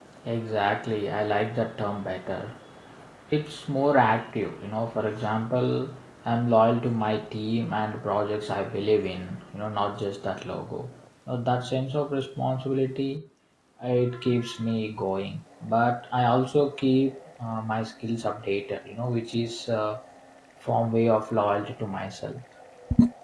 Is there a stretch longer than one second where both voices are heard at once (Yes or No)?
No